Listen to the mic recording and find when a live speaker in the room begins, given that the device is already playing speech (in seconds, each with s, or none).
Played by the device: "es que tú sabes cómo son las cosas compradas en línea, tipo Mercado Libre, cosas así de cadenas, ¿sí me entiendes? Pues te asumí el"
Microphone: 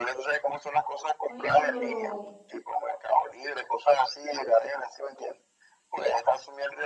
1.2 s